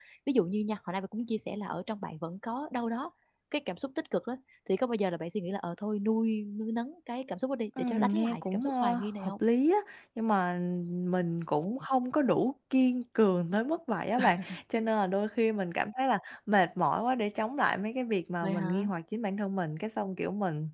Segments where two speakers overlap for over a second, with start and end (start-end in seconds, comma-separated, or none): 7.8-9.3